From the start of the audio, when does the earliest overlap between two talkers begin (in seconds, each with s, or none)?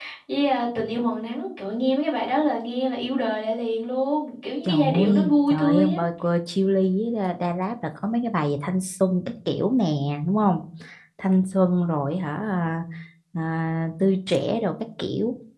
4.6 s